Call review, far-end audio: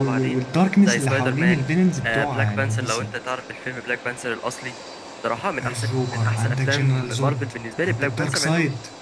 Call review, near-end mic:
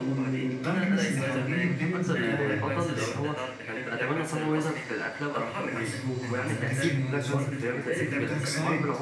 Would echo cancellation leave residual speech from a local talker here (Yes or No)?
Yes